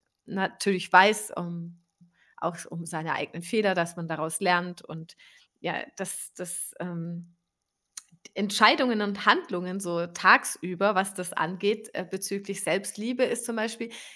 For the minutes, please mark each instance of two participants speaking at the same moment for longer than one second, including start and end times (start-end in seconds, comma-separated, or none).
none